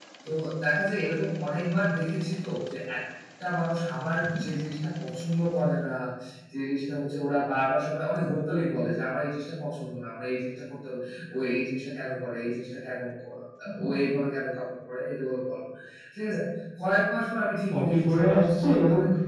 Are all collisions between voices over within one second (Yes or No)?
No